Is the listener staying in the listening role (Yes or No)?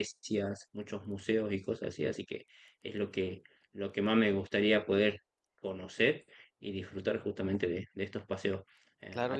Yes